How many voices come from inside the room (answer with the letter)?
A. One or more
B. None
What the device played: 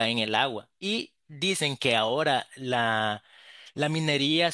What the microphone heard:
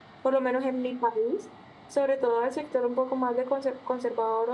A